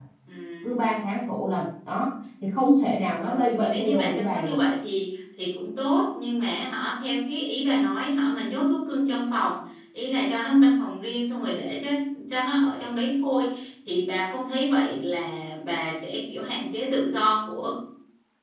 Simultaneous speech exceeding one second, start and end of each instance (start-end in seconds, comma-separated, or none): 3.2-4.6